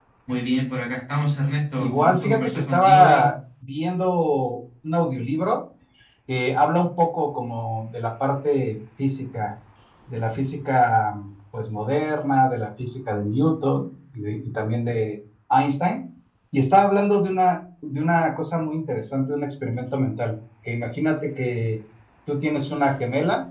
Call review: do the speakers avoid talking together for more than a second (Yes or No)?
No